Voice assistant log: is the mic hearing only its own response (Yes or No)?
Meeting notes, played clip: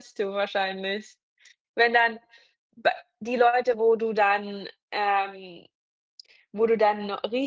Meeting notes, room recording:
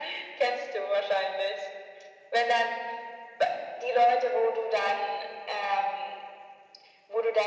Yes